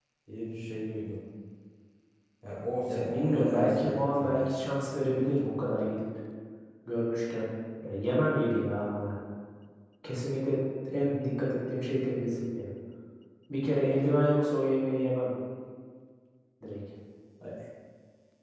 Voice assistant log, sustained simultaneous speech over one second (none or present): present